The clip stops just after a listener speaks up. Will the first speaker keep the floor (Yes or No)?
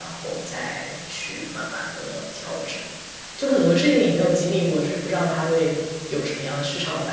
No